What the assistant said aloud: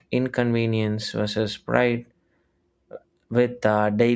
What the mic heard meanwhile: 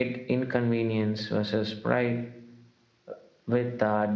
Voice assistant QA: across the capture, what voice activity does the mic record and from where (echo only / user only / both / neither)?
echo only